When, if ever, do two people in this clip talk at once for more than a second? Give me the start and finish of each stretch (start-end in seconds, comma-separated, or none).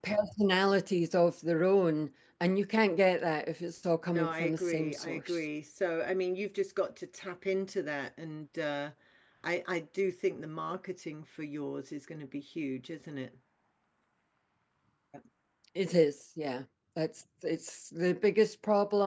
4.1-5.4